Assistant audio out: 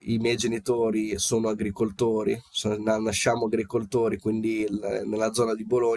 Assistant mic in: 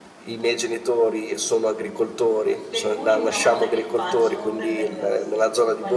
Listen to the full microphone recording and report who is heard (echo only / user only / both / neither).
both